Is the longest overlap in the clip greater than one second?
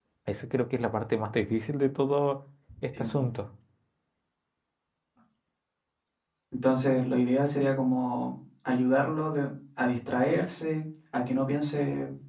No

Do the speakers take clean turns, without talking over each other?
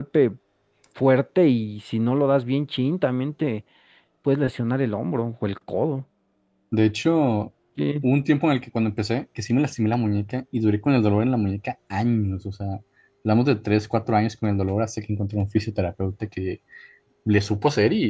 Yes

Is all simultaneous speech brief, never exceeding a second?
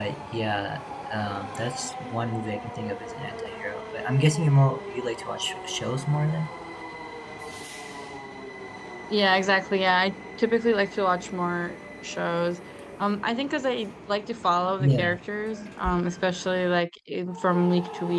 Yes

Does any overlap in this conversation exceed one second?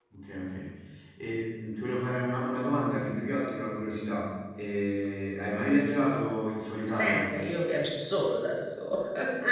No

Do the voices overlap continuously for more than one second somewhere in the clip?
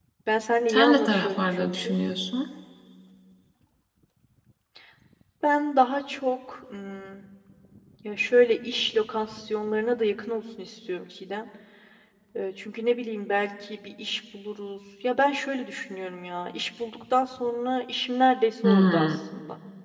Yes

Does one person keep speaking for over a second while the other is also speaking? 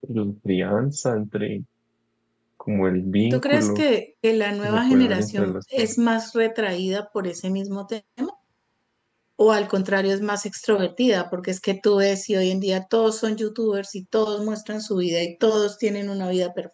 Yes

